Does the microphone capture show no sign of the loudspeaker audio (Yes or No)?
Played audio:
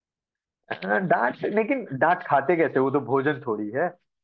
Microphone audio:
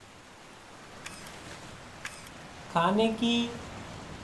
Yes